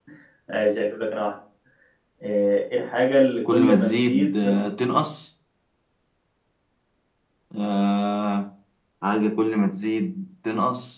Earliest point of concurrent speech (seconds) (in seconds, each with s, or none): 3.5 s